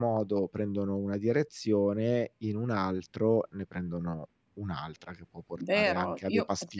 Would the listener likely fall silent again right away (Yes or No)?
No